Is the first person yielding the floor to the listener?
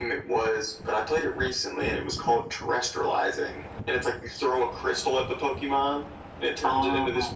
No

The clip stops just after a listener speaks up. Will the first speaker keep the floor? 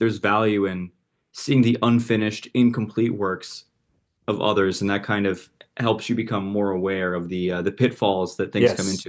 No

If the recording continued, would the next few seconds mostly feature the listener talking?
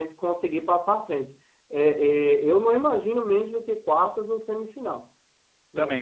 No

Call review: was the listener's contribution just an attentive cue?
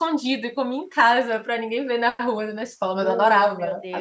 No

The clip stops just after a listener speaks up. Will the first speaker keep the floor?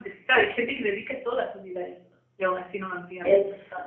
No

